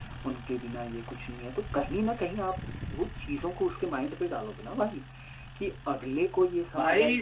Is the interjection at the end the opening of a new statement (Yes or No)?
Yes